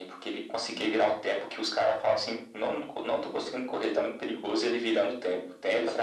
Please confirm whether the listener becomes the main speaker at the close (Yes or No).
Yes